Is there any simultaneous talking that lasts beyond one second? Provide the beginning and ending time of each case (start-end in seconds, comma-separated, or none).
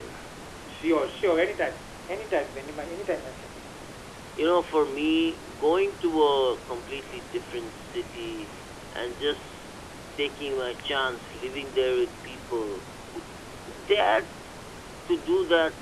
none